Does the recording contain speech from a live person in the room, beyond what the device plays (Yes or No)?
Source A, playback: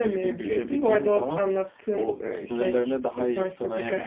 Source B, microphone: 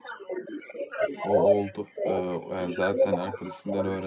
Yes